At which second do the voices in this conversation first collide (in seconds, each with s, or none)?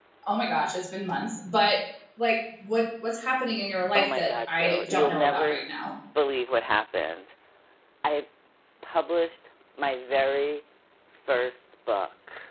4.0 s